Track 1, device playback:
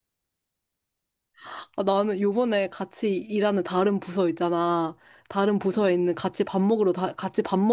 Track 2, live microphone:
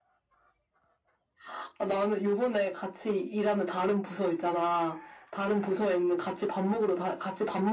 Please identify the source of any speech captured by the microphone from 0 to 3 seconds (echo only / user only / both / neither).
echo only